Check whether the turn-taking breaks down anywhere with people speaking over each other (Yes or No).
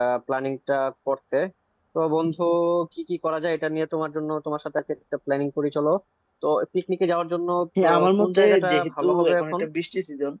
Yes